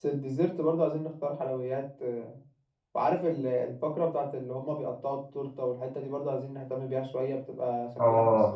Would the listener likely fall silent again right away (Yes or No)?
No